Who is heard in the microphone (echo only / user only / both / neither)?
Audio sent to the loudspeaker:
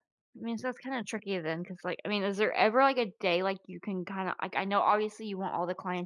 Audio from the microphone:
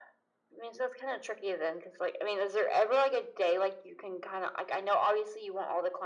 echo only